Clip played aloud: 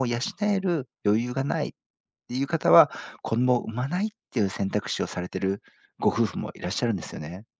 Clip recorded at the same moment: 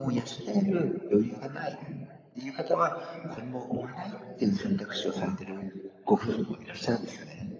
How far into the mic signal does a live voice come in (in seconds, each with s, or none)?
none